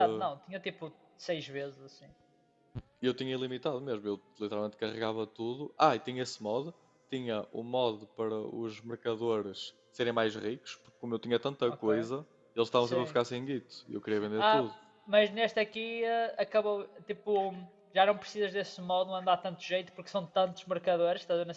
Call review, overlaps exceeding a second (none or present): none